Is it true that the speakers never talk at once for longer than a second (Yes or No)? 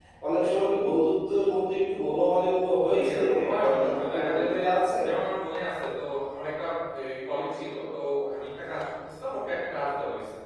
No